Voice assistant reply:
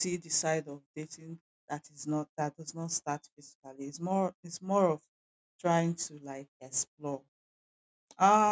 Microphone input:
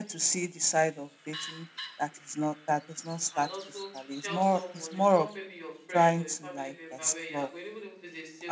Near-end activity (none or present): present